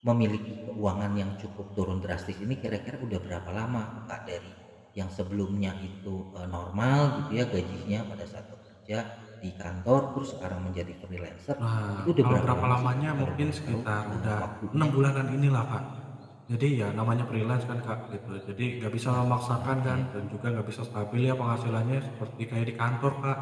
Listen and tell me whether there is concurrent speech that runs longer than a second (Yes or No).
Yes